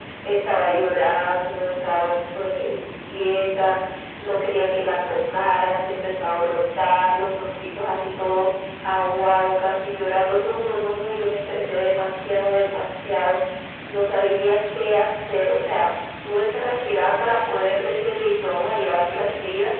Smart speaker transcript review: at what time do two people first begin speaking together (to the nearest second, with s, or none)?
none